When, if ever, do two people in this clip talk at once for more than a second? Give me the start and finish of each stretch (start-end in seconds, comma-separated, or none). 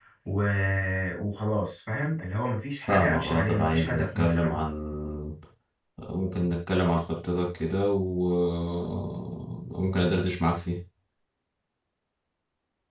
2.9-4.6